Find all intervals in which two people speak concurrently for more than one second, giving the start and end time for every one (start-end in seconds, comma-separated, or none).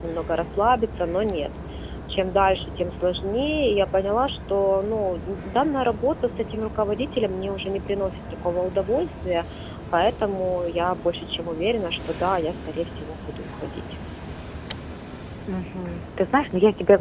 none